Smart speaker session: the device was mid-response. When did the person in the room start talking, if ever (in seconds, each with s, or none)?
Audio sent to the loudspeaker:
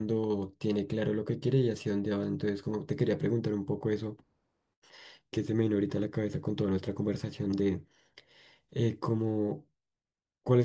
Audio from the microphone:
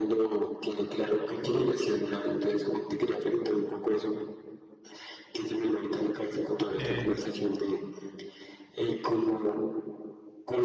6.7 s